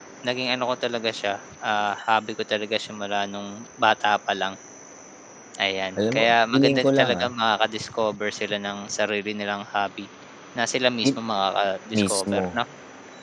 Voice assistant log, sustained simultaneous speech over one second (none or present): present